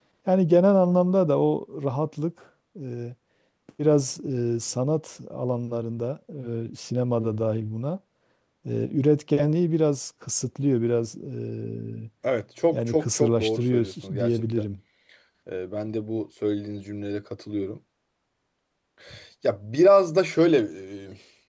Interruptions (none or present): present